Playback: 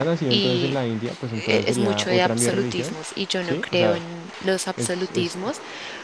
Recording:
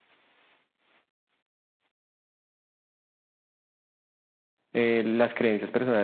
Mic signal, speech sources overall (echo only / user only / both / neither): user only